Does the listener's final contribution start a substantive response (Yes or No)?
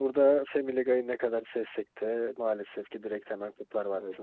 Yes